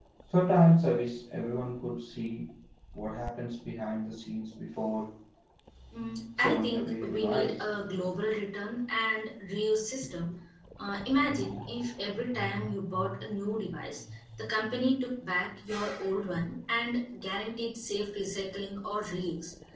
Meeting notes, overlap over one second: present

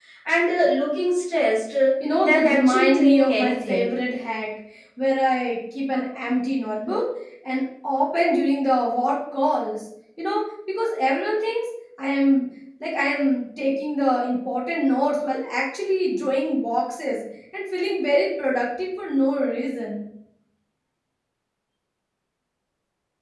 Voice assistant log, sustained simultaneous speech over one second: present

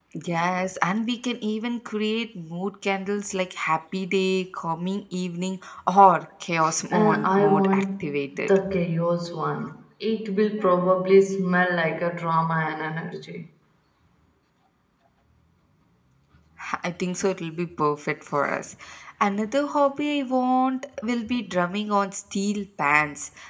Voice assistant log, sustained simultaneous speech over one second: present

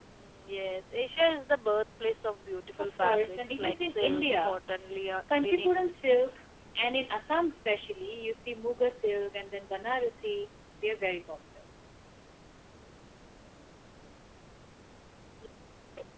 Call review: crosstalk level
present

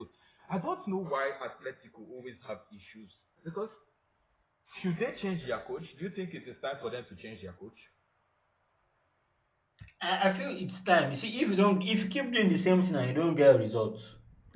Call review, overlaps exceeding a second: none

